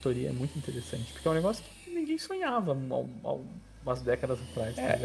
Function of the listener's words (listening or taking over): taking over